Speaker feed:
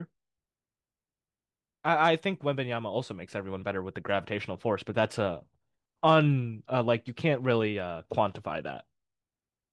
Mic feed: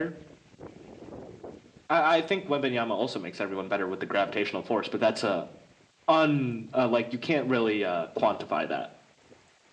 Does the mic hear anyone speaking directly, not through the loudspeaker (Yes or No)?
No